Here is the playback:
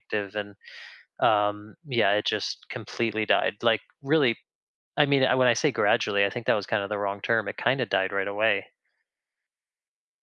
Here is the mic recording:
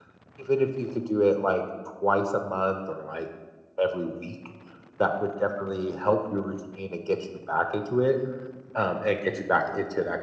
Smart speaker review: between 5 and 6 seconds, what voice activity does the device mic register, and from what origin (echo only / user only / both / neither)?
user only